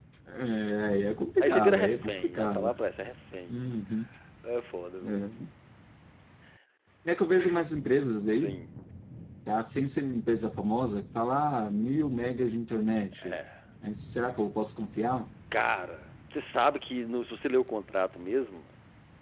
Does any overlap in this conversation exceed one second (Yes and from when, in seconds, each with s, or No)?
Yes, from 1.4 s